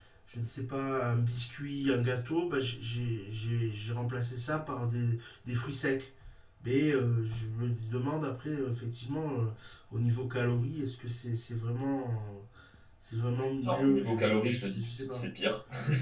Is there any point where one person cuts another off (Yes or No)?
Yes